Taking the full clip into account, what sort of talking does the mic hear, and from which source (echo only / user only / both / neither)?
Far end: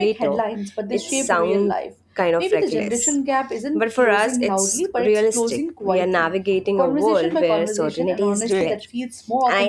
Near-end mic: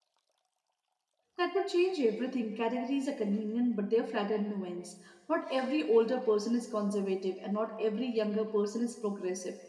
user only